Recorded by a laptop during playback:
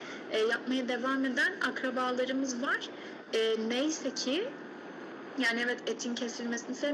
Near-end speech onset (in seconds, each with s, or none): none